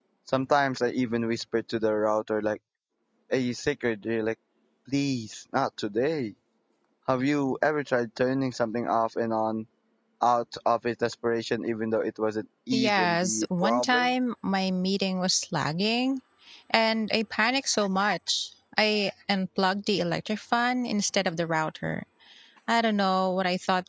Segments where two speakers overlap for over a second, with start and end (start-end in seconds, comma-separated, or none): 12.7-14.1